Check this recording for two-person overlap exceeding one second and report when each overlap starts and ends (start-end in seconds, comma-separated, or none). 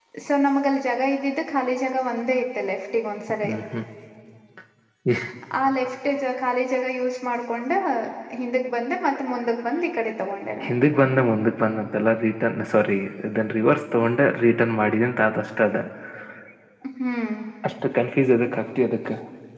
none